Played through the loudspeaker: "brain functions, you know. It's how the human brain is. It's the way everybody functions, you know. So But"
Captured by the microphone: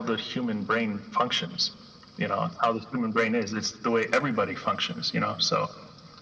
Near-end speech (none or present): none